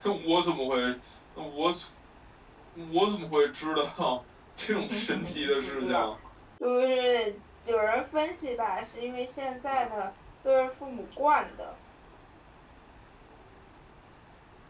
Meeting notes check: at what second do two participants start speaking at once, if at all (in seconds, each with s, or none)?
4.7 s